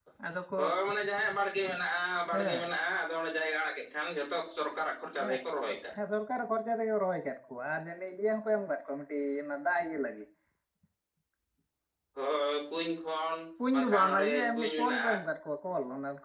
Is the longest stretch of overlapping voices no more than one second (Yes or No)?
No